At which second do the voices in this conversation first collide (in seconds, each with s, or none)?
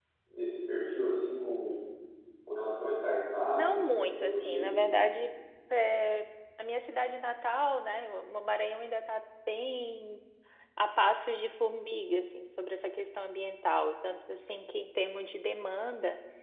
3.6 s